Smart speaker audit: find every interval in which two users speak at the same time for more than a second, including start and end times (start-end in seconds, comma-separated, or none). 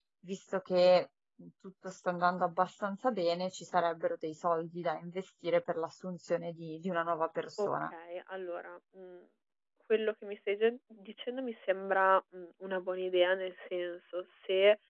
none